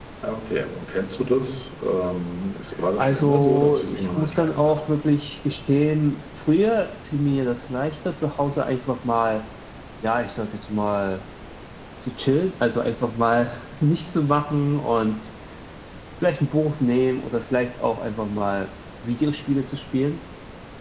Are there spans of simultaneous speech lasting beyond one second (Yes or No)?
Yes